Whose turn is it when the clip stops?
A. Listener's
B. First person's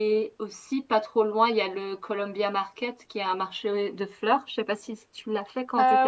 A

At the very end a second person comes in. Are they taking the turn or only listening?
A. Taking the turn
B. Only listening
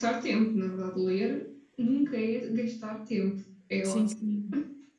A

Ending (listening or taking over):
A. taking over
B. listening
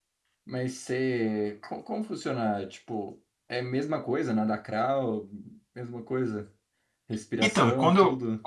A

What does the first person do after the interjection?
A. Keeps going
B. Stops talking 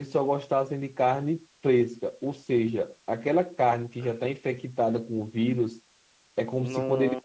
A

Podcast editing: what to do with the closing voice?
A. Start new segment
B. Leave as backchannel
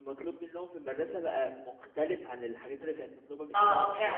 A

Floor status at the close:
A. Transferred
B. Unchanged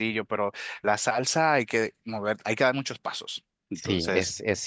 A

